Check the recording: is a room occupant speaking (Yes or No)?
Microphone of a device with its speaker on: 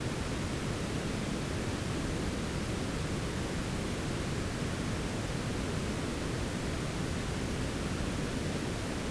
No